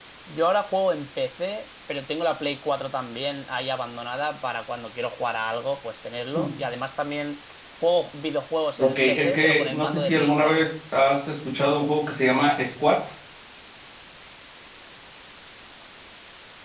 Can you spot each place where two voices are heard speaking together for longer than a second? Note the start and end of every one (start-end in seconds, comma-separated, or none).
8.8-10.7